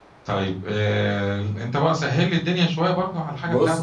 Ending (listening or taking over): taking over